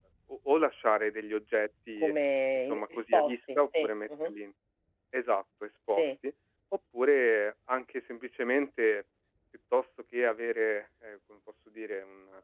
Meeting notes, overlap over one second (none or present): present